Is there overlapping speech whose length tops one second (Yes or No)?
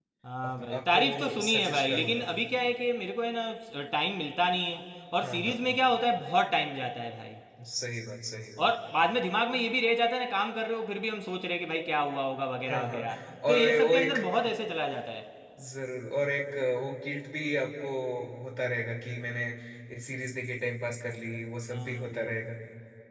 Yes